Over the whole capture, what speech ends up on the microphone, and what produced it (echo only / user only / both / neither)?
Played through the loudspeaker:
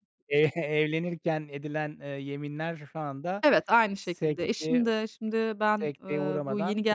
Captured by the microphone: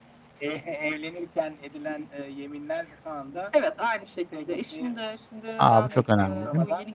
both